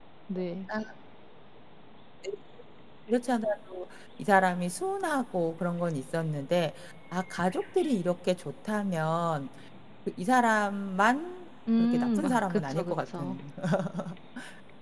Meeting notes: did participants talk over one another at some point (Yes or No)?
Yes